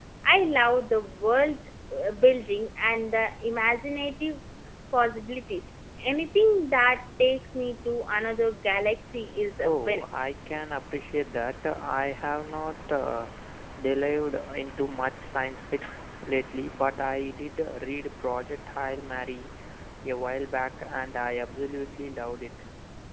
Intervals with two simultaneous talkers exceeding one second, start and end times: none

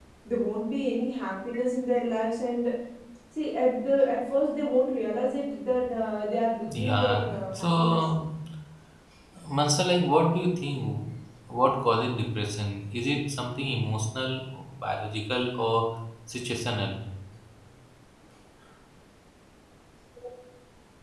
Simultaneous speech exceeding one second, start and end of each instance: 6.7-8.0

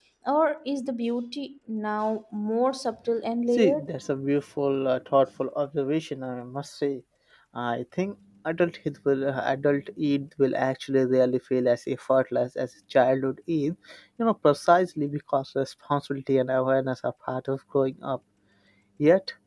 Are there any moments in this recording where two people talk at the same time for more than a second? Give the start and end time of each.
none

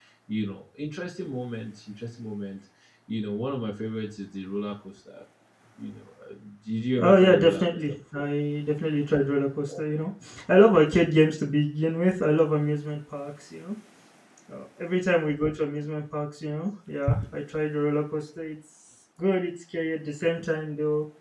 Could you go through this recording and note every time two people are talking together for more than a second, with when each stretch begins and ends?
7.0-8.3

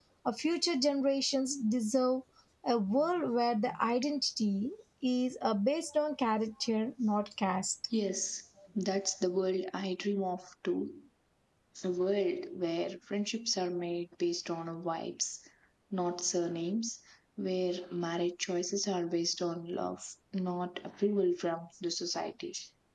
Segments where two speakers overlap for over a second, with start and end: none

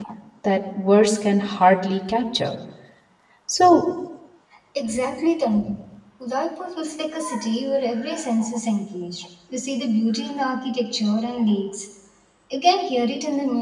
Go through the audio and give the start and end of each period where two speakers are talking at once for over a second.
none

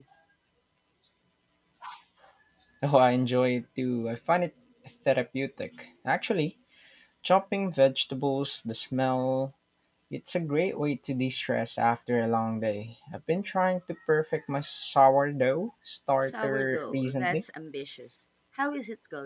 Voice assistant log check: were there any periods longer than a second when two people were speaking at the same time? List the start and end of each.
16.2-17.4

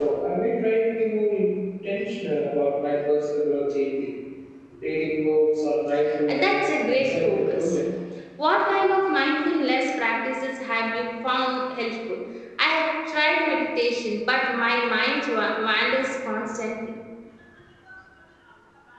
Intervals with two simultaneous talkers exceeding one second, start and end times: 6.3-7.8

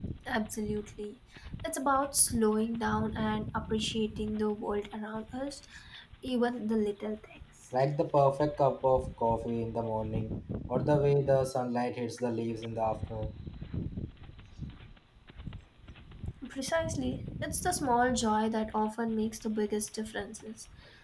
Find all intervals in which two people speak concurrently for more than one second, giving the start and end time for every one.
none

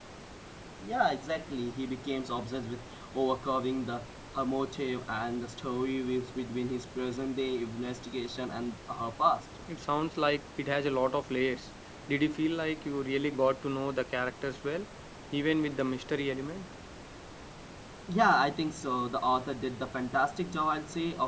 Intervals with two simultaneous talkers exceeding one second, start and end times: none

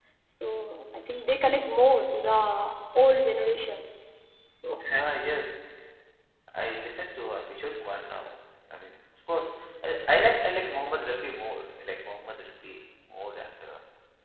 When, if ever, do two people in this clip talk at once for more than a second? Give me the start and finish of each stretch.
none

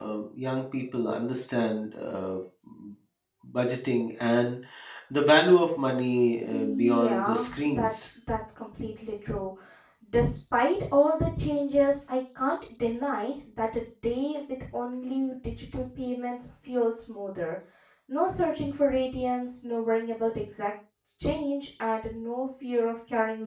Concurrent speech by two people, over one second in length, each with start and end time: 6.5-8.0

